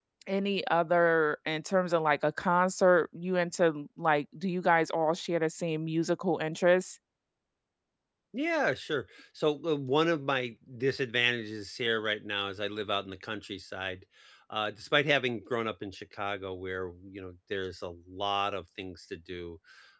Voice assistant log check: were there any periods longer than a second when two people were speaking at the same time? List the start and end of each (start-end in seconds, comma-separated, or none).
none